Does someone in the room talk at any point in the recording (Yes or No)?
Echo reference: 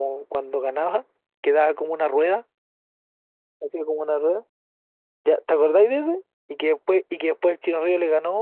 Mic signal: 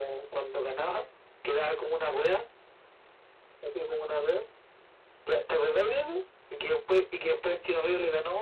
No